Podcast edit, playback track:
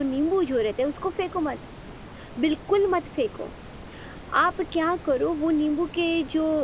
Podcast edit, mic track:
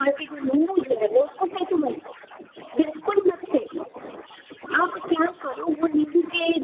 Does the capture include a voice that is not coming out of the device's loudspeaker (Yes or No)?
No